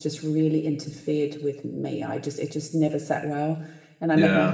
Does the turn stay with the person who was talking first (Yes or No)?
Yes